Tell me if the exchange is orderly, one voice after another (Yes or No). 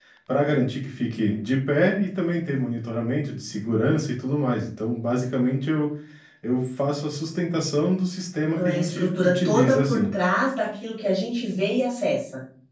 No